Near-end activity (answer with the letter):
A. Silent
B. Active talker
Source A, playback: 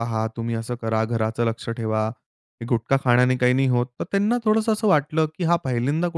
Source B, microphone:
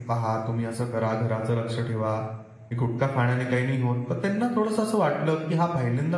A